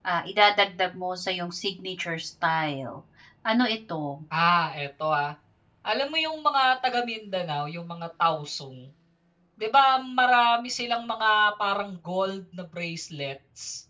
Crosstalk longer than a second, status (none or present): none